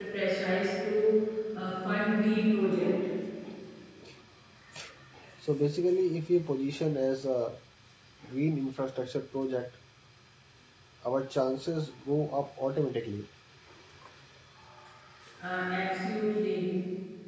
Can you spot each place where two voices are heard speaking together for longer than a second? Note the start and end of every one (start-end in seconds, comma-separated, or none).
none